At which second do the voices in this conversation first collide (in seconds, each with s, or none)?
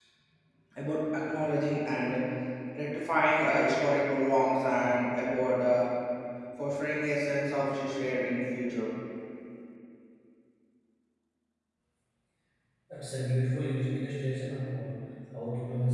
none